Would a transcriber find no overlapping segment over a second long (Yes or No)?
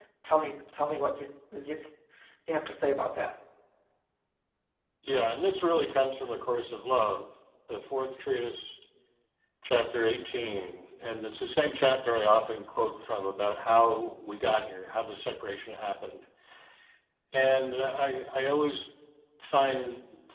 Yes